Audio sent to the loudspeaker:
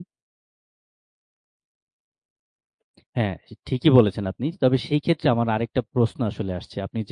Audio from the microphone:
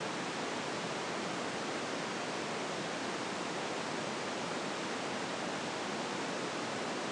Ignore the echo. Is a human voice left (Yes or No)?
No